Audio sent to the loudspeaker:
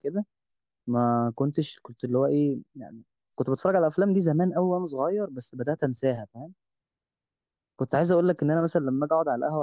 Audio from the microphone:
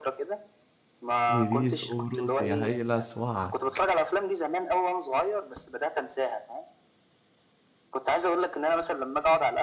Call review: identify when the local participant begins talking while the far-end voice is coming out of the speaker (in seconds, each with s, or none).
1.3 s